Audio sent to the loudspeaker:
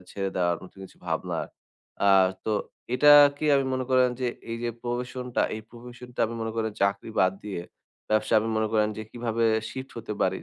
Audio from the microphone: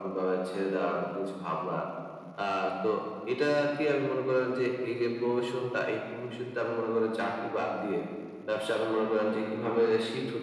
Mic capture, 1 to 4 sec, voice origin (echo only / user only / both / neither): echo only